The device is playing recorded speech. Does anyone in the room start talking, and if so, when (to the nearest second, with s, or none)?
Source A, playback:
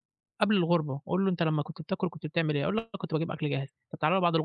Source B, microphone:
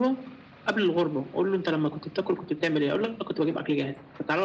none